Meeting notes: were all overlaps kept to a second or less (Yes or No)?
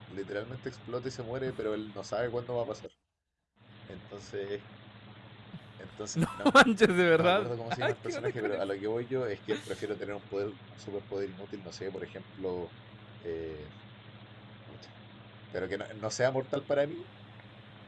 No